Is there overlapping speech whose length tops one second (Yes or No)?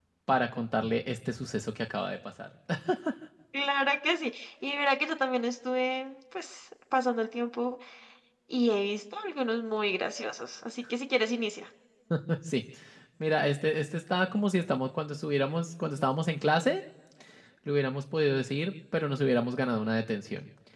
No